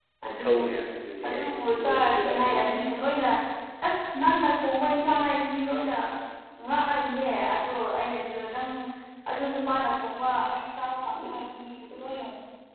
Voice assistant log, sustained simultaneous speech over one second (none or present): present